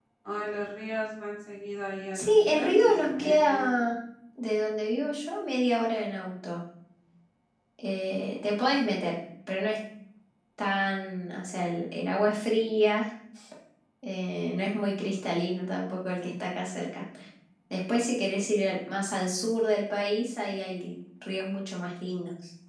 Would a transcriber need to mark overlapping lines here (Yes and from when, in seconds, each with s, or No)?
Yes, from 2.1 s